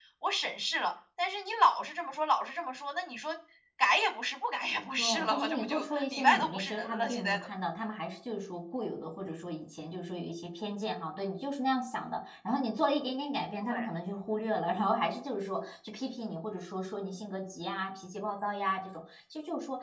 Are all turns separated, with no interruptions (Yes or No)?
No